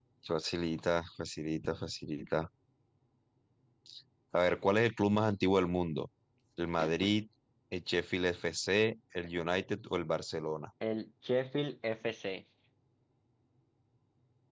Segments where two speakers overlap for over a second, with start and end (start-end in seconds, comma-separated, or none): none